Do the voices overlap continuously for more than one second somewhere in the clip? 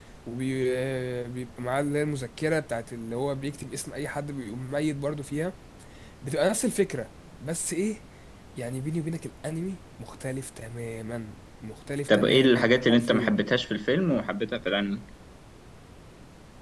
Yes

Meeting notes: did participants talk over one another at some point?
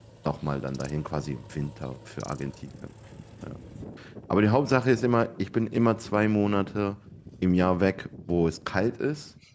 No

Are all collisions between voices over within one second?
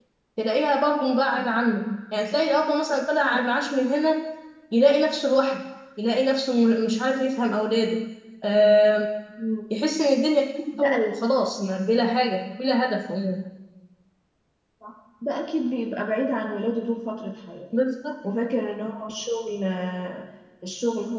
Yes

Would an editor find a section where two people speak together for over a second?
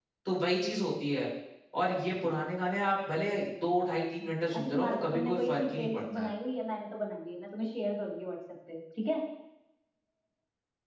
Yes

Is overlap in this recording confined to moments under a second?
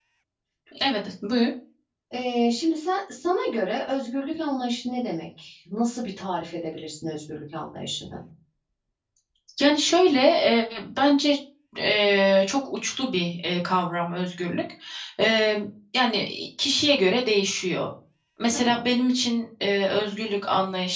Yes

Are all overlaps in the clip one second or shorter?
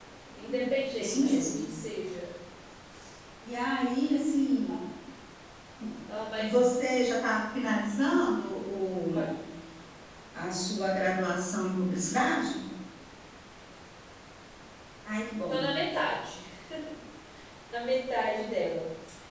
No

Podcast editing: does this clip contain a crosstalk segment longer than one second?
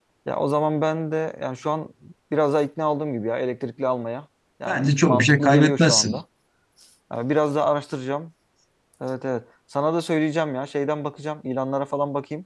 Yes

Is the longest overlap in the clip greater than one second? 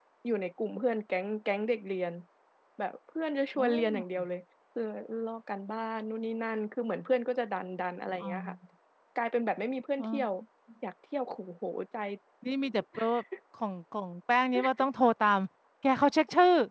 No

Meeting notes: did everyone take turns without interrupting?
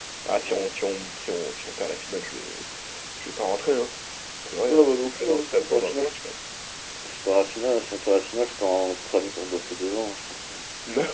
No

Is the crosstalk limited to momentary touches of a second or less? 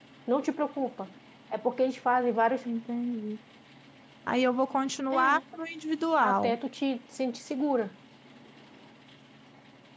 Yes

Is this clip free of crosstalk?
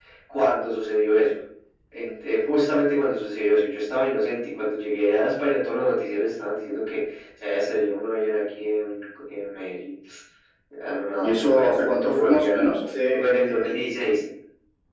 No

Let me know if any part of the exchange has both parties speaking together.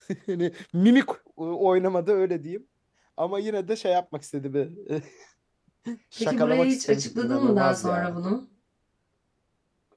Yes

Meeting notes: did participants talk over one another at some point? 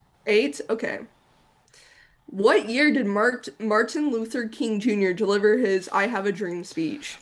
No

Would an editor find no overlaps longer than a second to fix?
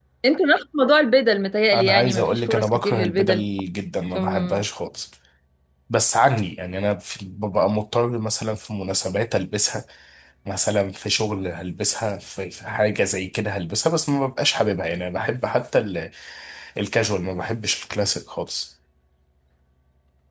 No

